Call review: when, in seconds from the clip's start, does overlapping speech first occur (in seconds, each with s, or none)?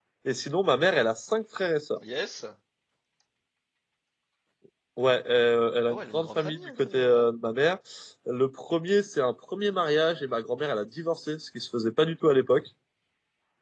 5.9 s